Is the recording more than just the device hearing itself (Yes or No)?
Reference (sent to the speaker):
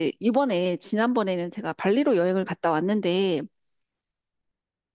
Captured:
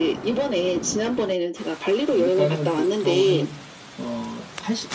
Yes